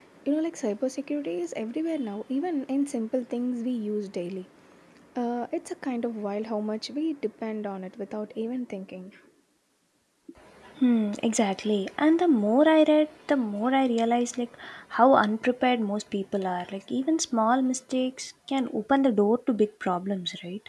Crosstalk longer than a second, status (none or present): none